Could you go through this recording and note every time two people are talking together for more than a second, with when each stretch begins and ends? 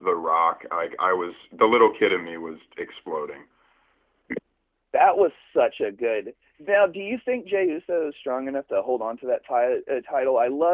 none

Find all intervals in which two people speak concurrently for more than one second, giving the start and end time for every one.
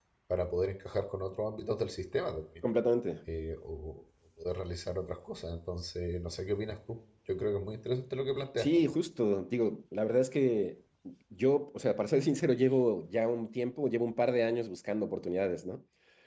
none

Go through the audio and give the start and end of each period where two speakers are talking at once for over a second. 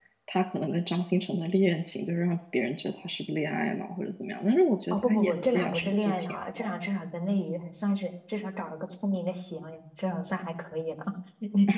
4.9-6.7

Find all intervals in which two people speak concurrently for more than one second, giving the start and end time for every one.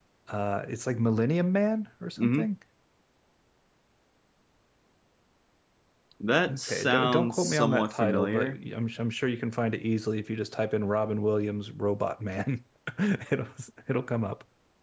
6.6-8.6

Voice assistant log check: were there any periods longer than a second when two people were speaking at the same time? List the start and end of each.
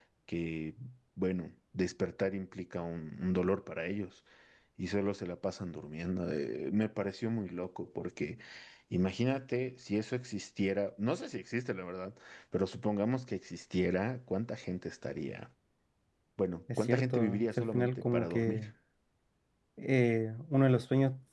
16.8-18.6

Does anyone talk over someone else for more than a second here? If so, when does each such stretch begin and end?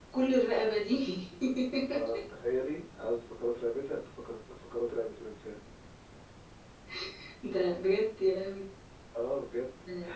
none

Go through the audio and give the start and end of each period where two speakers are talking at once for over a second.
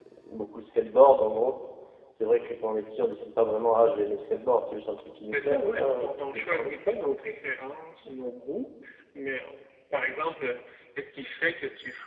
5.3-6.7

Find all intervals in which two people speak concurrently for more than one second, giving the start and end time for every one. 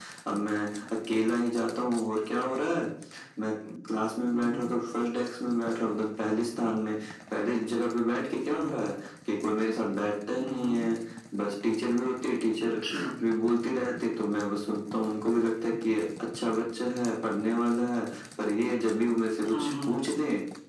none

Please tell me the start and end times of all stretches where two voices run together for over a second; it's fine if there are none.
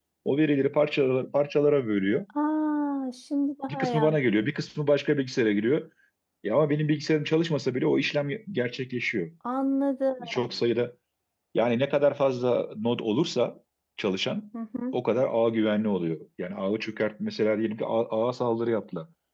none

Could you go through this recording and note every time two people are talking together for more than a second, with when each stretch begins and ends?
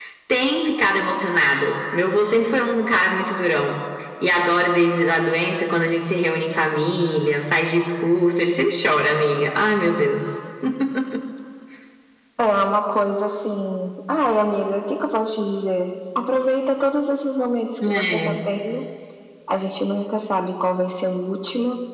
none

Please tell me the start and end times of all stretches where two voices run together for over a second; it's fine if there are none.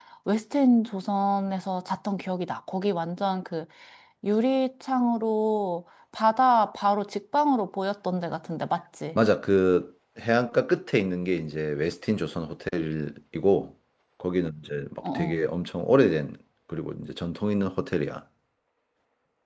none

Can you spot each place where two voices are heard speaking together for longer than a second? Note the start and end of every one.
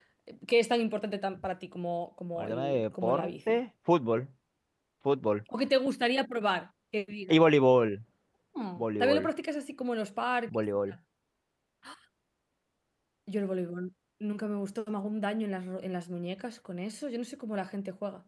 2.4-3.6

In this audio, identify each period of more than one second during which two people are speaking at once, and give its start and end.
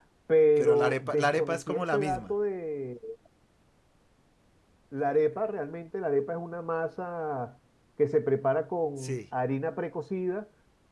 0.6-2.4

